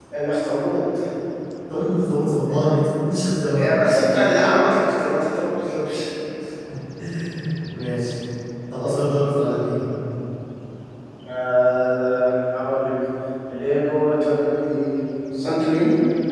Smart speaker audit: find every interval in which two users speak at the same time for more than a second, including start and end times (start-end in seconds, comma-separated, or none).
none